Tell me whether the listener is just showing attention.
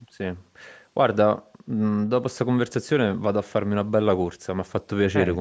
No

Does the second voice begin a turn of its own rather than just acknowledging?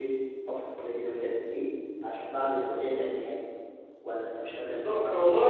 Yes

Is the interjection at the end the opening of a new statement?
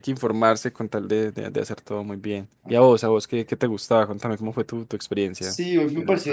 Yes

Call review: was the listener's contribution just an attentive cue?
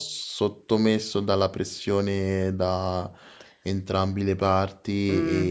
No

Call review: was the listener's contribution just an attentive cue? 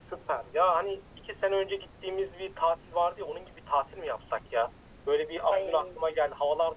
Yes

